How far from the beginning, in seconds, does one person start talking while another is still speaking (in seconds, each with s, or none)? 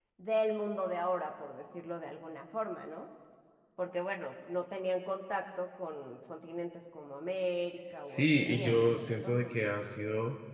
8.1 s